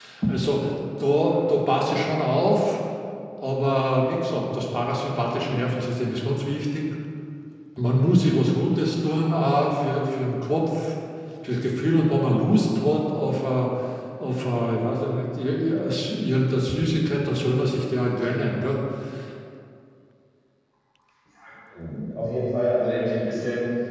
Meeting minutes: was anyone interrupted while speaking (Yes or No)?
No